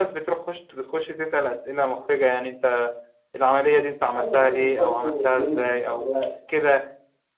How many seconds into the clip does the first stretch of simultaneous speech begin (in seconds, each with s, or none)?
4.1 s